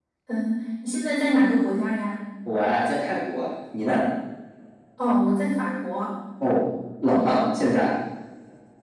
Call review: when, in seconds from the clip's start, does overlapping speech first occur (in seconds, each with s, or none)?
none